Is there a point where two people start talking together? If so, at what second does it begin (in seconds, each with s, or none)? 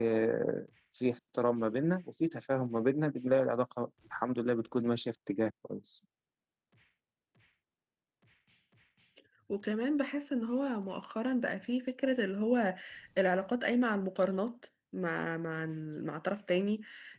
none